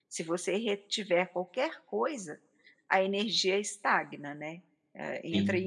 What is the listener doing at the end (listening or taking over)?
listening